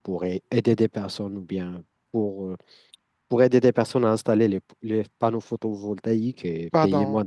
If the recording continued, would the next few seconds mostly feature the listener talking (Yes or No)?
Yes